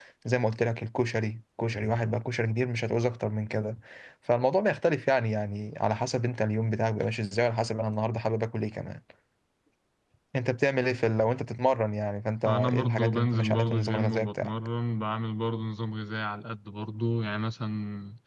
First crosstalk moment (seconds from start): 12.4 s

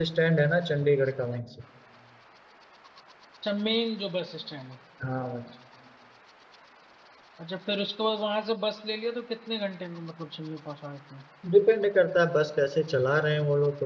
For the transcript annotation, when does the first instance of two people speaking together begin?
none

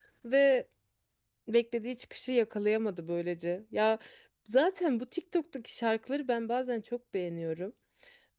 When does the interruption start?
none

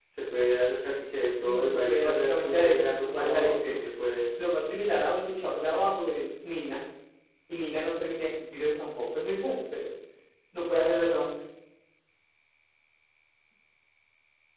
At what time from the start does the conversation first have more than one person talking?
1.4 s

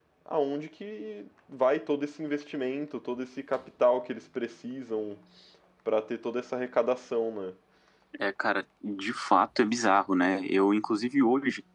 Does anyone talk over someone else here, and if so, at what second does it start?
none

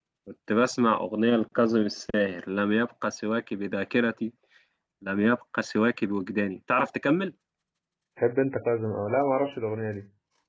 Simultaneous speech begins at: none

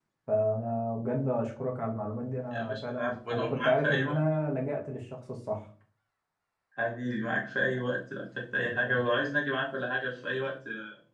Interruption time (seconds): 2.5 s

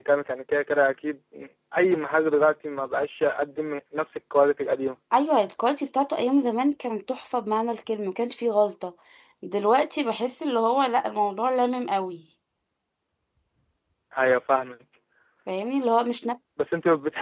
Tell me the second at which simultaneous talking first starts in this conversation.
none

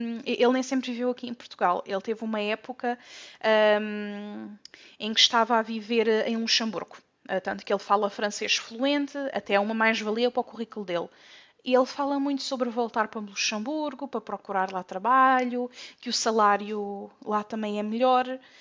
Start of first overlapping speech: none

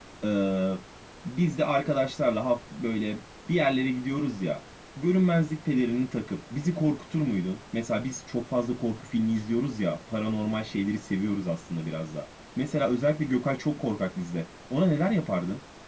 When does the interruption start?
none

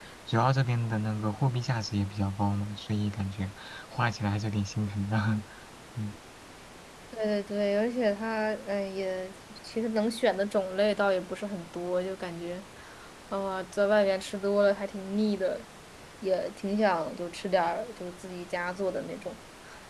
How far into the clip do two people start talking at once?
none

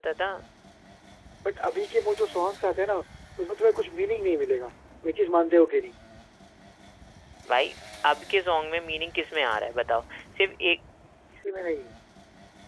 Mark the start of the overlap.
none

